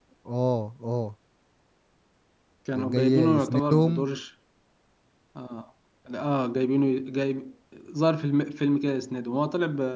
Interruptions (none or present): present